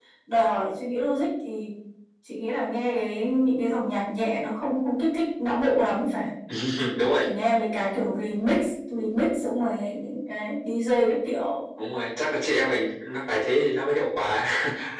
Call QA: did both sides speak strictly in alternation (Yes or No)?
Yes